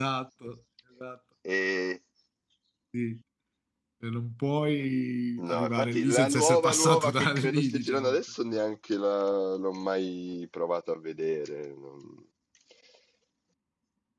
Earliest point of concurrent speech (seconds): 5.4 s

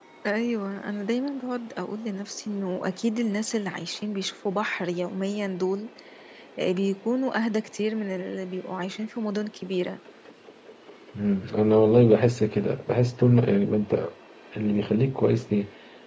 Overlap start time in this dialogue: none

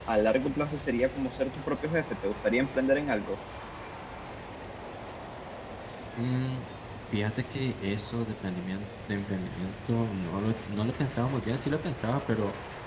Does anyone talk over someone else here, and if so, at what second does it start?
none

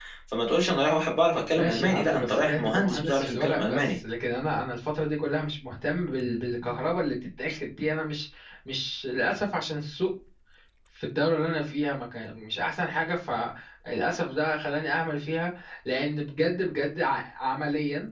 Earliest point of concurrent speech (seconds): 1.6 s

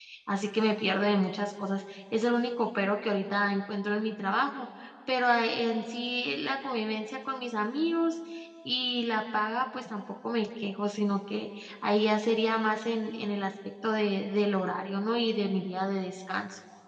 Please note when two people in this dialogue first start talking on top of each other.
none

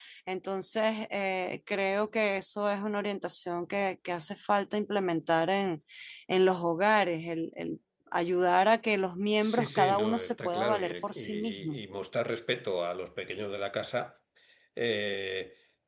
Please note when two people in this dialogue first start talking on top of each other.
9.4 s

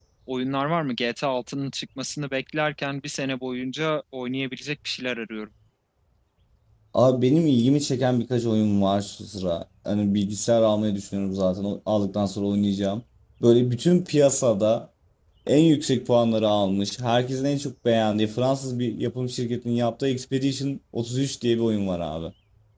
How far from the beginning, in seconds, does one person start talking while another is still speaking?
none

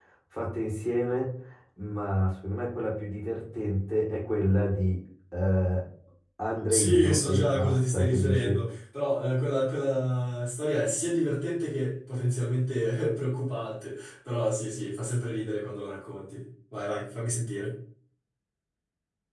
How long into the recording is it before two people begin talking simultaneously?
6.7 s

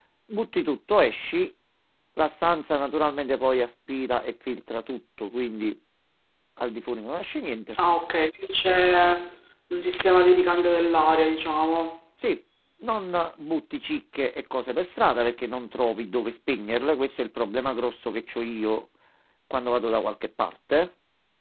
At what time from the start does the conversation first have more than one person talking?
none

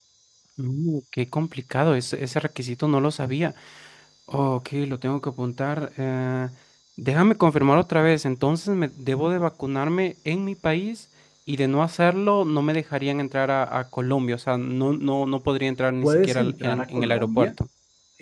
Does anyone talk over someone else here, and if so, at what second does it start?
16.0 s

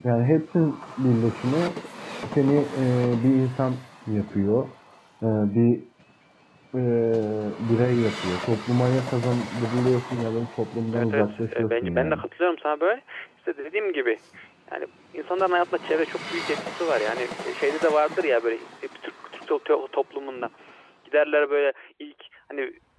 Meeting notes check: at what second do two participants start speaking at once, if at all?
10.9 s

